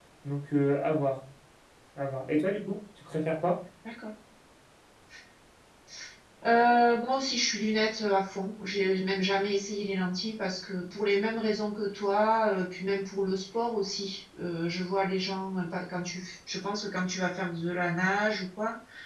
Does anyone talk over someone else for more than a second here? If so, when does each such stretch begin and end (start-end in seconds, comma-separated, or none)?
none